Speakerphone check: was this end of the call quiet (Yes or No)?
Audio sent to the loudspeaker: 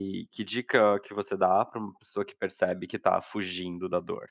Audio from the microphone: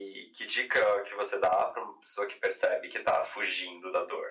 Yes